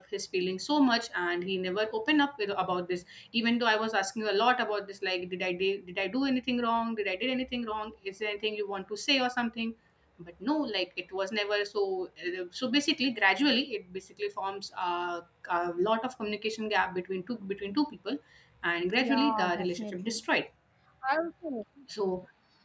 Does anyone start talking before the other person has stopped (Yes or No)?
Yes